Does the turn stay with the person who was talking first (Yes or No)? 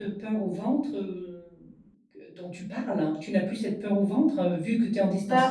Yes